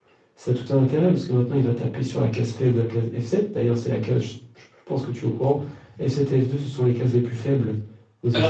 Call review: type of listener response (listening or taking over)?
taking over